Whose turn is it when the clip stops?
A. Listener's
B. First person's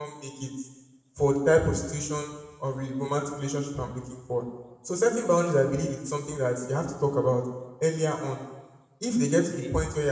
B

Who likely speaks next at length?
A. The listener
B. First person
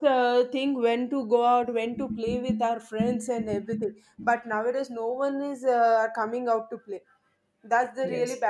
B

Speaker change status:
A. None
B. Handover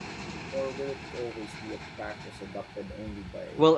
B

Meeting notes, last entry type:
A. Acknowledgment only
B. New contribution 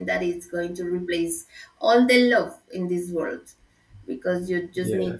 A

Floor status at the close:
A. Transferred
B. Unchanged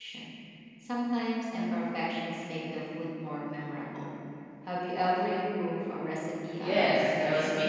A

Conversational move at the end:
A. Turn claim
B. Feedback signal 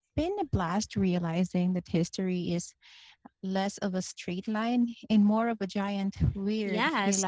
A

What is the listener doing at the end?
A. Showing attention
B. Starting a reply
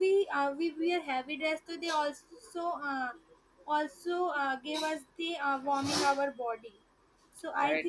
A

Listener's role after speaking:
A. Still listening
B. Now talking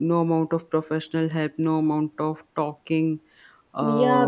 B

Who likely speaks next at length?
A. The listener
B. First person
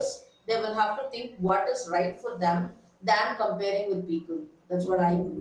A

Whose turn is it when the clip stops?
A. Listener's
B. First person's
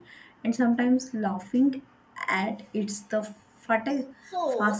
A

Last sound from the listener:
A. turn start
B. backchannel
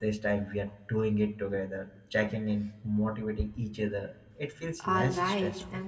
A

